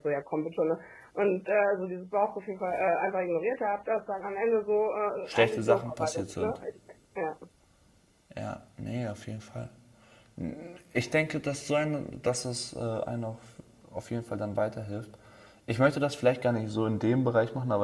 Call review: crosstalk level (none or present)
present